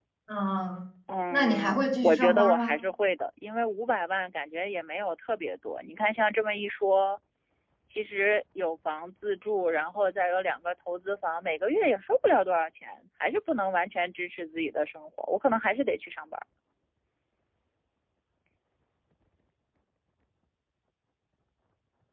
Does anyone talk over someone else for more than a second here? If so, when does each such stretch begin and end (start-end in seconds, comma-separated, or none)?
1.3-2.8